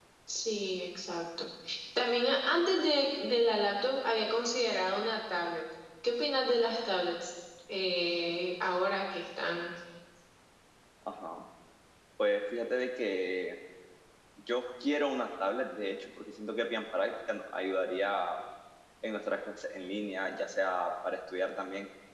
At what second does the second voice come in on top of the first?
none

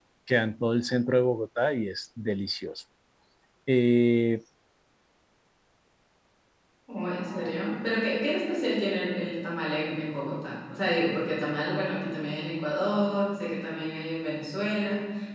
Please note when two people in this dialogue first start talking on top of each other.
none

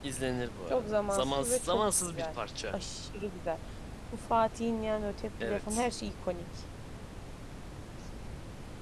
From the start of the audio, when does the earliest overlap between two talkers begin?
0.7 s

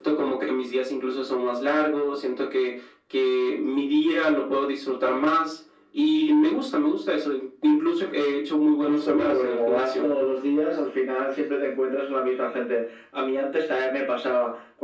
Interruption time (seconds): 8.9 s

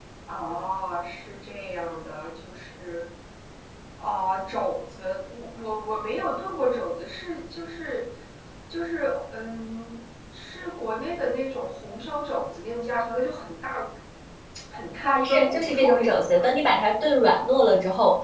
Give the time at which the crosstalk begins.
15.2 s

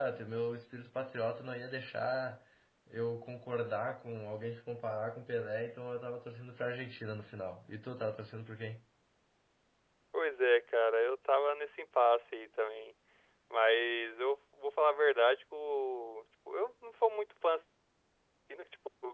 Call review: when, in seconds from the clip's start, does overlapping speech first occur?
none

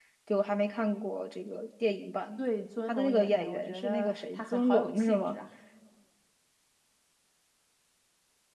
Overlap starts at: 2.9 s

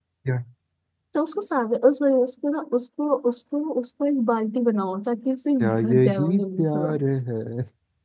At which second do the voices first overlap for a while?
5.6 s

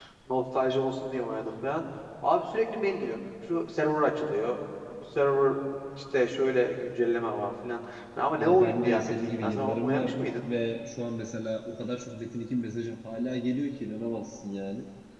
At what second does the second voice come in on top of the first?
8.4 s

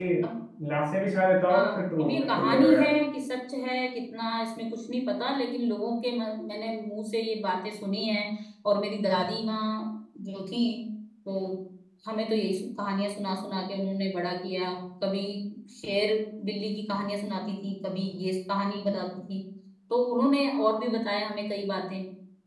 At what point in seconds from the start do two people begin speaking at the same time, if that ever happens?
1.5 s

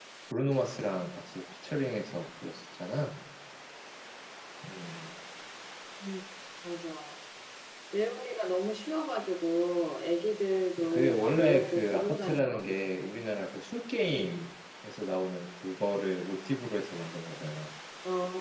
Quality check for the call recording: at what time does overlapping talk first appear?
10.8 s

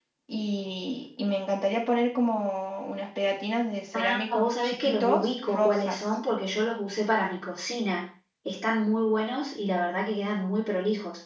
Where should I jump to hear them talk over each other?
3.9 s

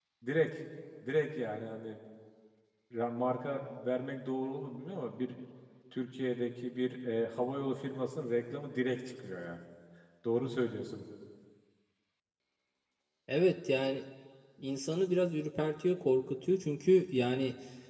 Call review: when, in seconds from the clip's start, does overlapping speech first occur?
none

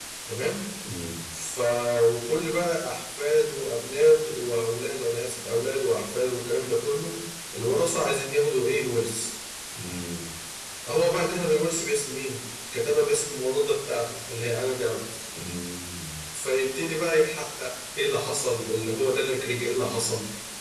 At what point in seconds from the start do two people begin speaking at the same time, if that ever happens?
none

